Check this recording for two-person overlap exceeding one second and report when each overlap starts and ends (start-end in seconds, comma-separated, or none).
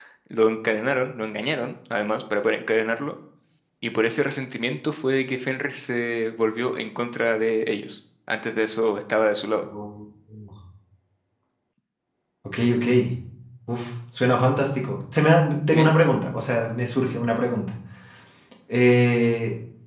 none